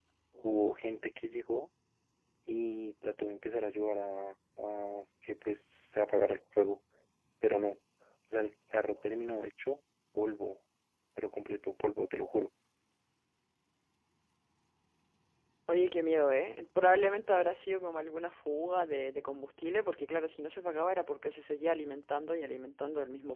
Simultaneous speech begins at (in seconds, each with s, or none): none